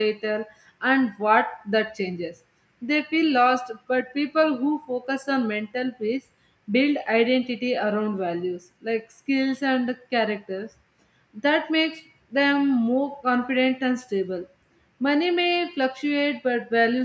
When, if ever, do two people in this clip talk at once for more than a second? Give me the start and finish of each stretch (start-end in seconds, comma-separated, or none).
none